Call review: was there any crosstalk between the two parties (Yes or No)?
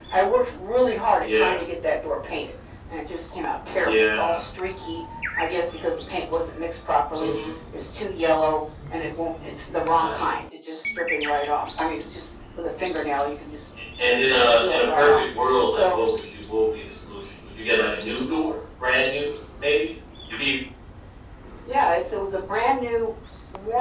Yes